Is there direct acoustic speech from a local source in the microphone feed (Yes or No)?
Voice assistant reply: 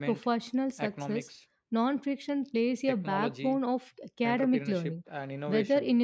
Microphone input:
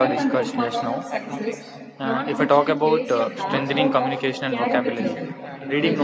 Yes